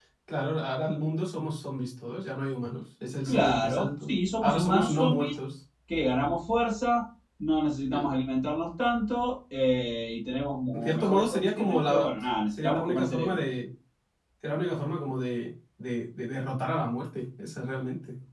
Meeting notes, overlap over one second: present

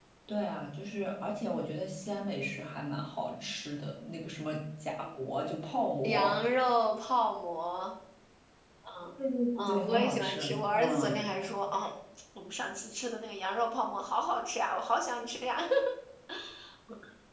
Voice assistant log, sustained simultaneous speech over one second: present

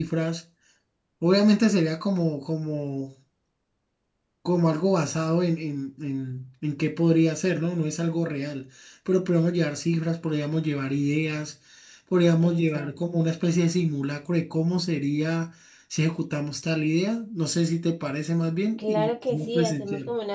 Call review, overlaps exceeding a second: present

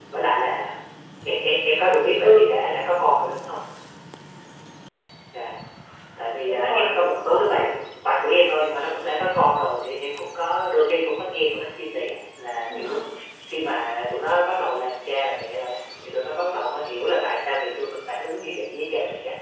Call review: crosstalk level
present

